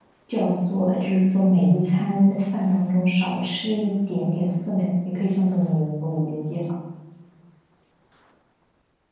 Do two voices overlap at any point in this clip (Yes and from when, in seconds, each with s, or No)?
No